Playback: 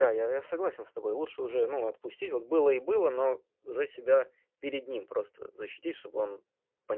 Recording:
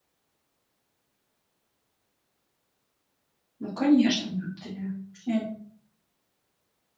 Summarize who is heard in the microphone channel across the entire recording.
user only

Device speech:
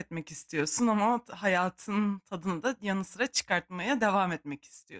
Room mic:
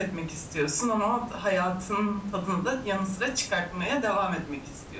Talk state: echo only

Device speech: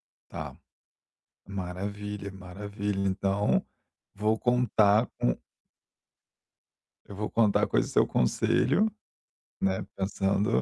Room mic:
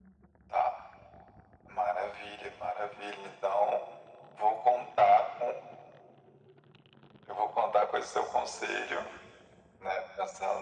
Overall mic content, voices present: echo only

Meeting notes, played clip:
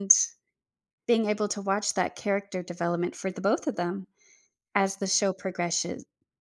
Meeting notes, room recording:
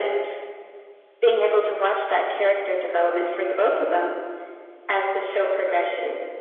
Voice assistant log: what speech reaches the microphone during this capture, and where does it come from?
echo only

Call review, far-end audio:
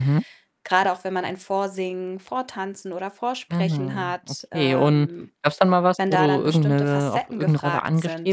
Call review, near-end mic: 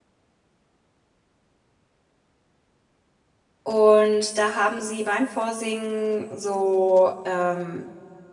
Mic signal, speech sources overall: user only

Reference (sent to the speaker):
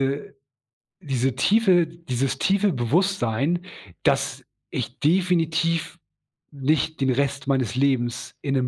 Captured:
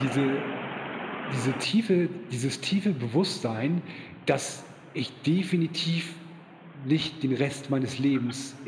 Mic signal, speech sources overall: echo only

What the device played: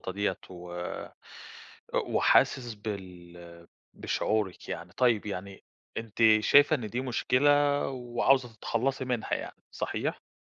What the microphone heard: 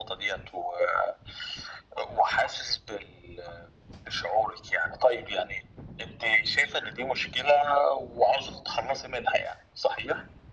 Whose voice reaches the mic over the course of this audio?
echo only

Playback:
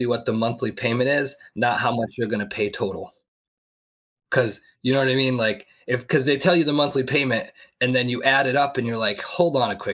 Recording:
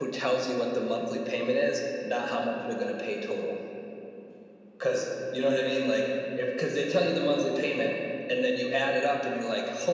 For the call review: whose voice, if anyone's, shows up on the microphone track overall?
echo only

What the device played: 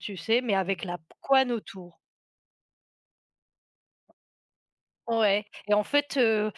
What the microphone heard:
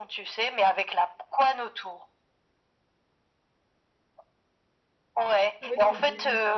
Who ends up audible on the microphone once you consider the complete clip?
both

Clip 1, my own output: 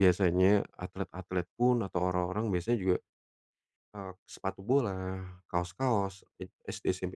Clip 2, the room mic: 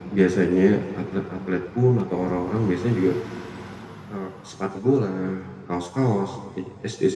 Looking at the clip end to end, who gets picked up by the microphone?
echo only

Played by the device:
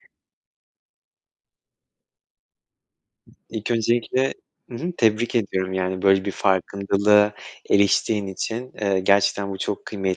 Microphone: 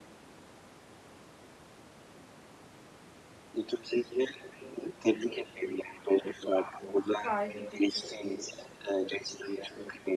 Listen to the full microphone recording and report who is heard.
both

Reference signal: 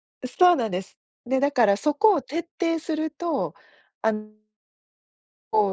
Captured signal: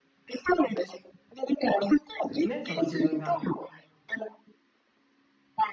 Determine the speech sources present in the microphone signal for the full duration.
both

